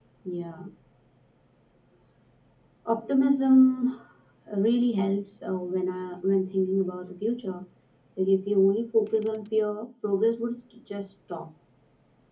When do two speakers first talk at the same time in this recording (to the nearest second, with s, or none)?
none